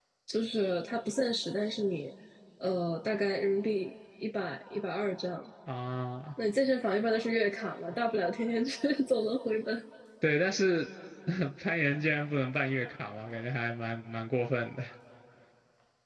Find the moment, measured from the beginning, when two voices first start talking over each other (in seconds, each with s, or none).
none